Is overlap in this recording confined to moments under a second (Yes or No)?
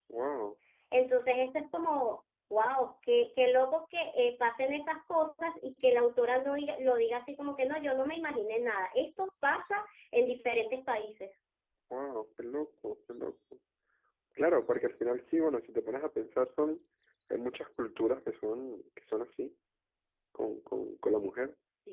Yes